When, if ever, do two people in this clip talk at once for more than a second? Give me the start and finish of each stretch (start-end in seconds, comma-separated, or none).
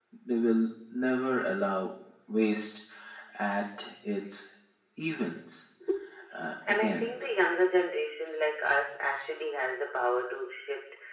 none